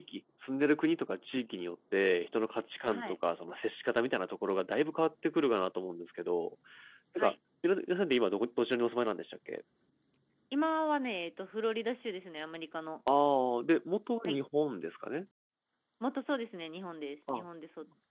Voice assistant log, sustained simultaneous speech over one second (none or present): none